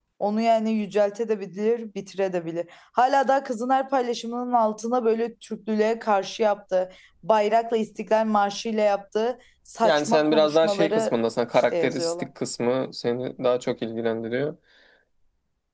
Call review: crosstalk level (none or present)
present